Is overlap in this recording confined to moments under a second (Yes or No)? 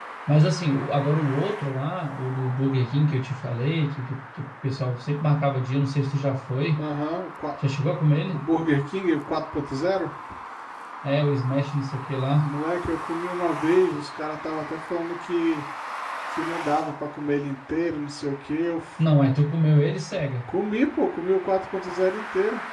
Yes